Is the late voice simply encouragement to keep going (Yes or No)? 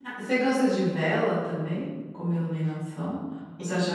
Yes